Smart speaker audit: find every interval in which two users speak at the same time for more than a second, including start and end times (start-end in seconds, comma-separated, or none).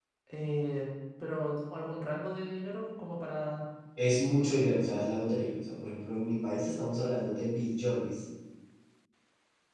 none